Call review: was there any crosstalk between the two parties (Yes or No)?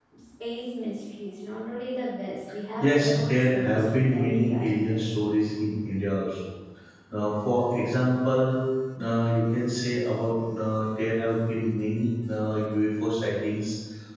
Yes